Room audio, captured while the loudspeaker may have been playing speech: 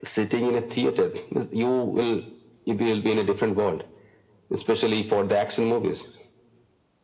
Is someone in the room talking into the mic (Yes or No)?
No